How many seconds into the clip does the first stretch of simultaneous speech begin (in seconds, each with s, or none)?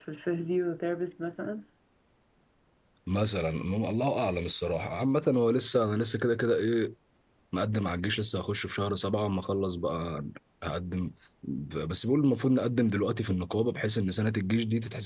none